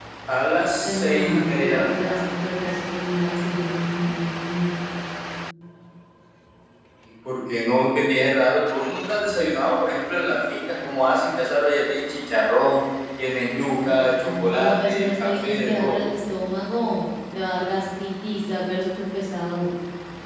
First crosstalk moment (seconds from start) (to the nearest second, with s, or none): 1 s